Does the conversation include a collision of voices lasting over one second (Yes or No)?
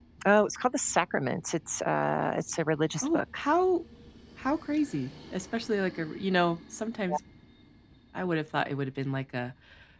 No